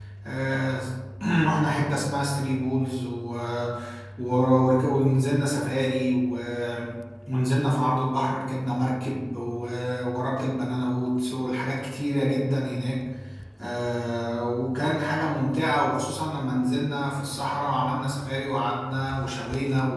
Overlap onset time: none

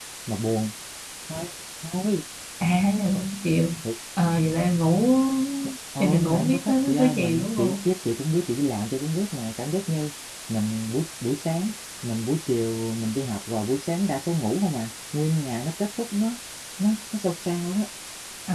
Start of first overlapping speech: 6.0 s

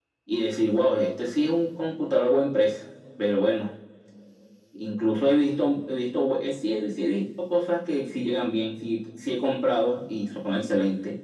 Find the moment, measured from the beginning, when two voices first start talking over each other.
none

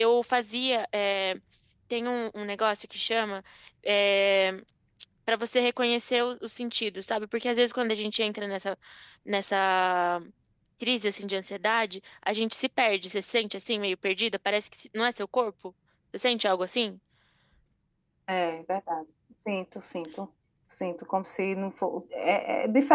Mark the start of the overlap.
none

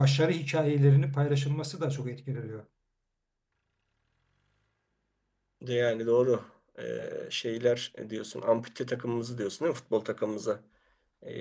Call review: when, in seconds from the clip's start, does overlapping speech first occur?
none

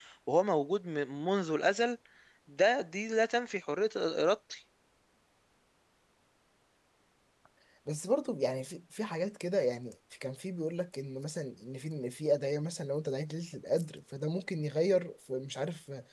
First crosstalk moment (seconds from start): none

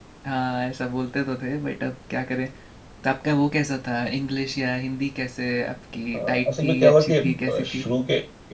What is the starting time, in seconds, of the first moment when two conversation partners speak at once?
6.1 s

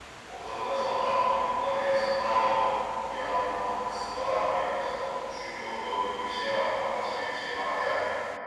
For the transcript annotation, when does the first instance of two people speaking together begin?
none

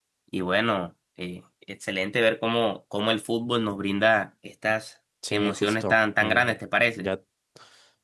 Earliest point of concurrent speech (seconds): 5.2 s

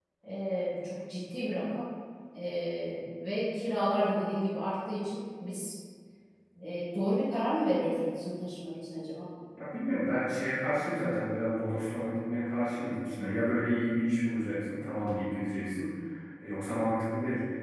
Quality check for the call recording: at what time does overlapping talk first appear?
none

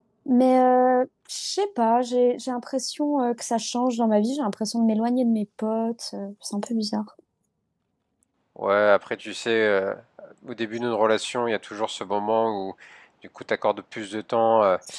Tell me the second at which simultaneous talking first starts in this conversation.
none

